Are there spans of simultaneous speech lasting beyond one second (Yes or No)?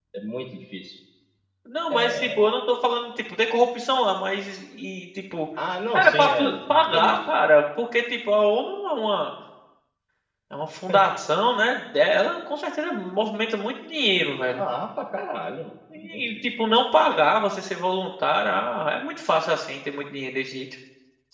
Yes